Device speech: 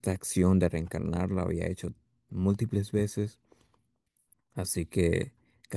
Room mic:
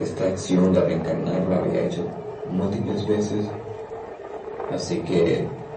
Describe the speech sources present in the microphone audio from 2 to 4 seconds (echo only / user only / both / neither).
echo only